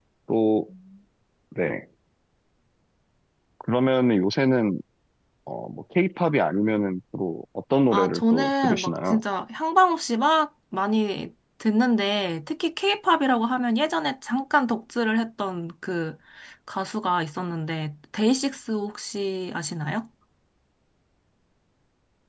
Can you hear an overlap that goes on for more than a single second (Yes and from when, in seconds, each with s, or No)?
Yes, from 7.9 s